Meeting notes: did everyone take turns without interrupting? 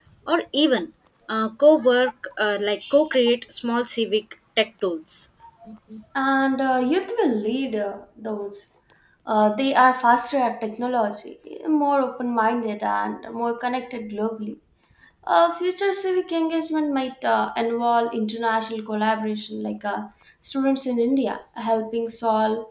Yes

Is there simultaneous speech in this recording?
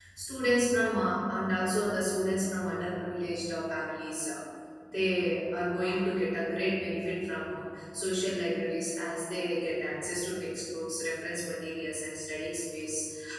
No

